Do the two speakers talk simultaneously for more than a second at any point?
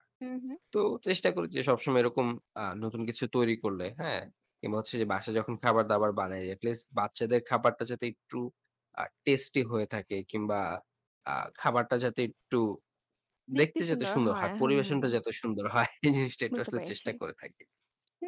Yes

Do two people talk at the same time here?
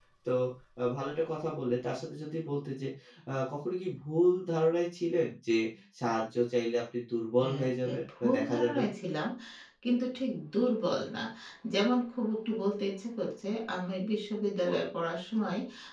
Yes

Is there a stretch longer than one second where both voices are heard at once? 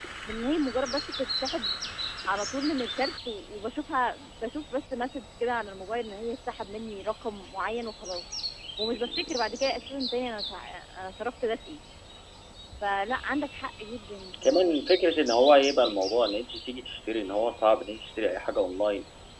No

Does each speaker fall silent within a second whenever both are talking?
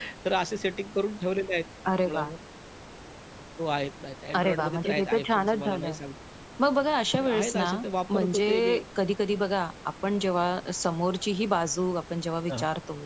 No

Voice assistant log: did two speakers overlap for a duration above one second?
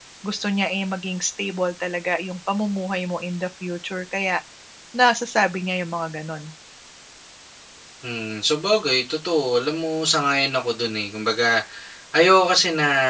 No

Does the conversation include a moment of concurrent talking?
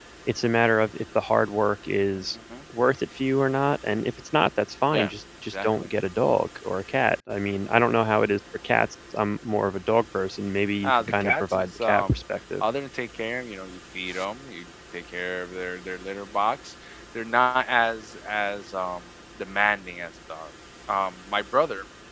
Yes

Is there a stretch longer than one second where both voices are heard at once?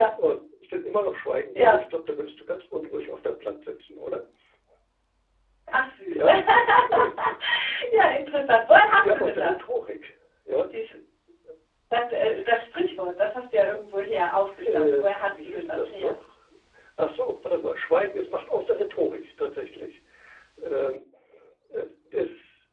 Yes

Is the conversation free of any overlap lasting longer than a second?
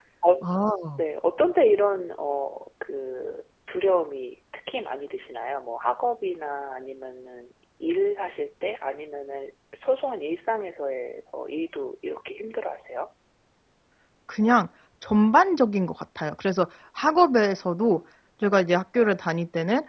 Yes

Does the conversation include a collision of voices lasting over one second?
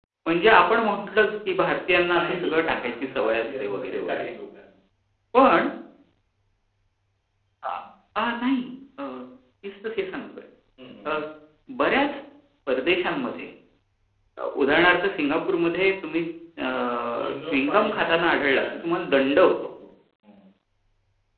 Yes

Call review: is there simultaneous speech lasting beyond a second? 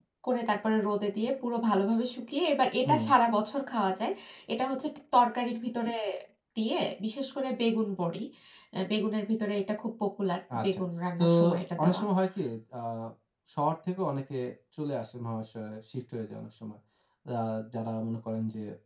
No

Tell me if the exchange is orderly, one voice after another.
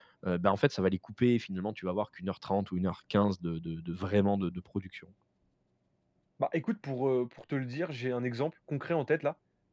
Yes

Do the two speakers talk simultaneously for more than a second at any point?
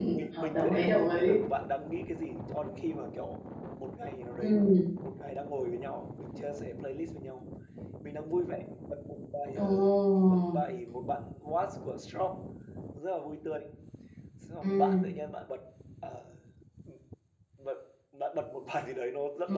Yes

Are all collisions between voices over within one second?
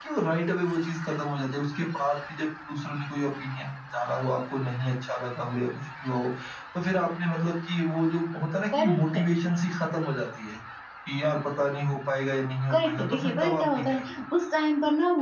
No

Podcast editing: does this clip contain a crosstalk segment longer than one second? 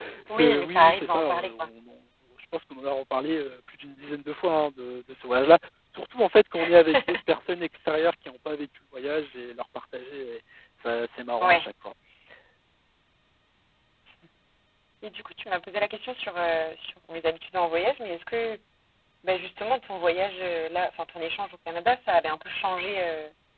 Yes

